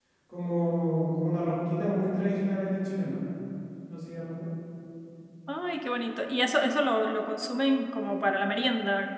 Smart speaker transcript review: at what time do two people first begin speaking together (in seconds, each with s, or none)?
none